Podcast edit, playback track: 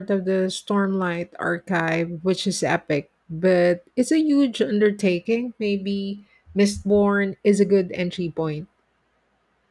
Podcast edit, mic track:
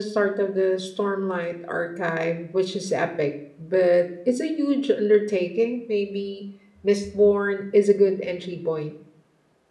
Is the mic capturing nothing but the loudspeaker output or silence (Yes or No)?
Yes